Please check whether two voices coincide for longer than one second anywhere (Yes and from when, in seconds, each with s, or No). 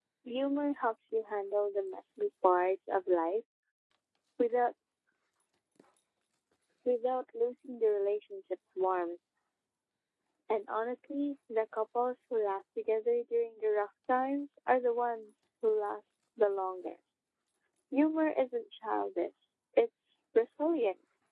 No